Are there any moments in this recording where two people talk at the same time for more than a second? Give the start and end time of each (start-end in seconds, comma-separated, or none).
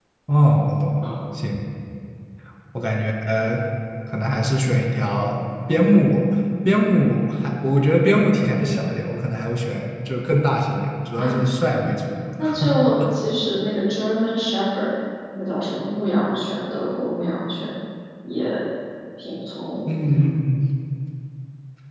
none